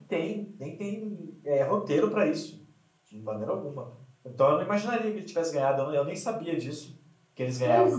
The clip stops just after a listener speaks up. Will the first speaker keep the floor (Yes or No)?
No